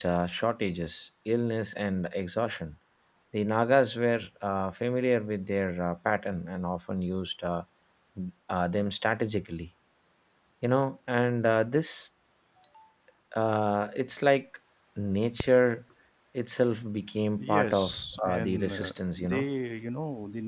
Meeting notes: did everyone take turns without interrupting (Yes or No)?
No